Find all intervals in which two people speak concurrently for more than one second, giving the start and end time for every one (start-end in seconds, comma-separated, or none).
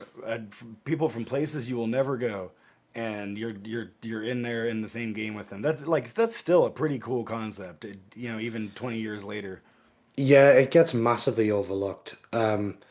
none